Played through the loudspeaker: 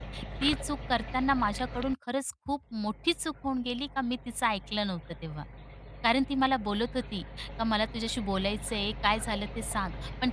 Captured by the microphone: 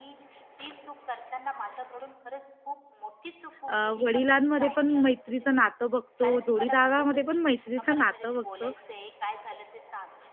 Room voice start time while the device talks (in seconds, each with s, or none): 3.7 s